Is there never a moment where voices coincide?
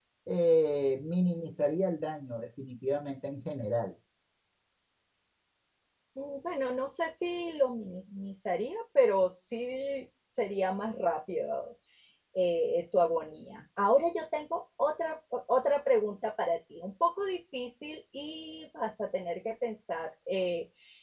Yes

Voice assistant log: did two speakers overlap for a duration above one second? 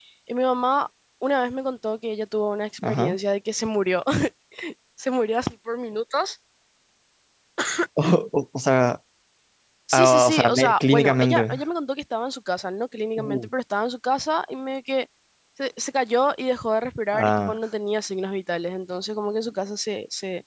Yes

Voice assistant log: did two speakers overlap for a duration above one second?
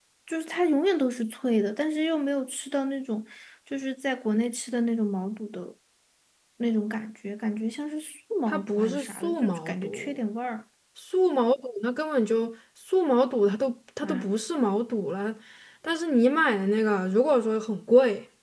Yes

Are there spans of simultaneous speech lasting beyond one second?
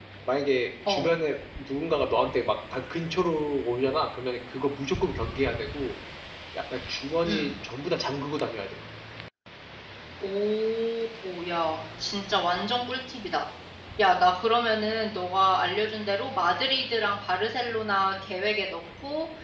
No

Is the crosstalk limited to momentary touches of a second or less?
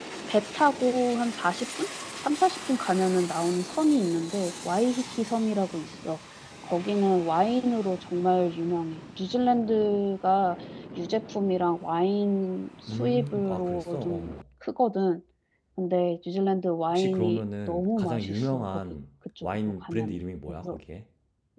No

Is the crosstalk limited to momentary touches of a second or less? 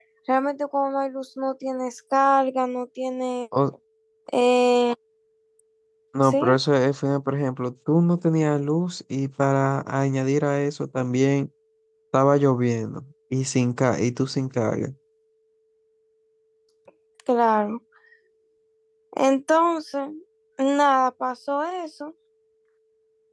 Yes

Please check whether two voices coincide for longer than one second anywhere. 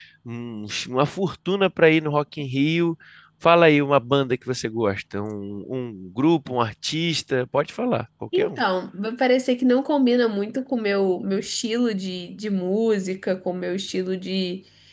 No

